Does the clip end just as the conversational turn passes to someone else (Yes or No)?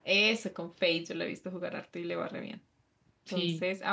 No